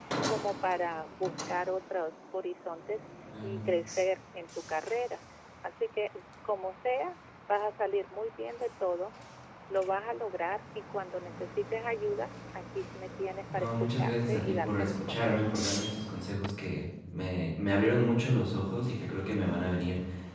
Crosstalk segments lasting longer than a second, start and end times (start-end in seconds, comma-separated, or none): 13.5-15.6